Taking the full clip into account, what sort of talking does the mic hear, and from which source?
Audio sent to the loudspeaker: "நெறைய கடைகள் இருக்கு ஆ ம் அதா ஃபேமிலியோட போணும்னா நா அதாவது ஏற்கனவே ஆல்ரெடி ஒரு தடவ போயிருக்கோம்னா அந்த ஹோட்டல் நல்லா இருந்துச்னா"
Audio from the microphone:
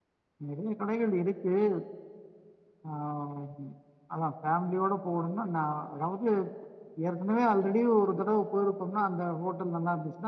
echo only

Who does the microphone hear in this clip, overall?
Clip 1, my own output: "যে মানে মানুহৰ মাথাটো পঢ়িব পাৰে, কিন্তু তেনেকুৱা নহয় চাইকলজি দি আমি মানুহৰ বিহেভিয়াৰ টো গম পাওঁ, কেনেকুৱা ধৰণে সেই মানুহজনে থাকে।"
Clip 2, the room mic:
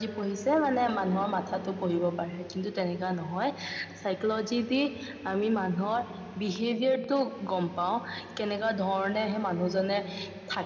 echo only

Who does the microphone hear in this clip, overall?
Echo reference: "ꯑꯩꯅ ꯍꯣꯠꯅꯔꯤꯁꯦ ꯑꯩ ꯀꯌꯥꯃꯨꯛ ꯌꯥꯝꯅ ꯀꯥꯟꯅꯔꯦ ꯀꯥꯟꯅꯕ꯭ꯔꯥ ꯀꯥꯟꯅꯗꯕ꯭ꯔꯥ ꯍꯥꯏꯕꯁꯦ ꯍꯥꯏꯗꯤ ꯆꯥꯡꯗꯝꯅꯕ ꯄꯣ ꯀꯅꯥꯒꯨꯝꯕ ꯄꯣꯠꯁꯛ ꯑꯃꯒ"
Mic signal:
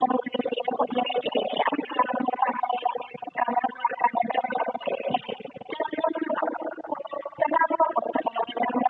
echo only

